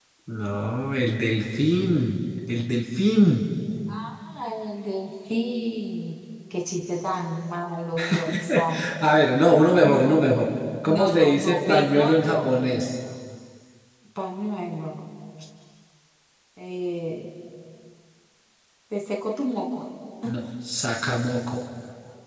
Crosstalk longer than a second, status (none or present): present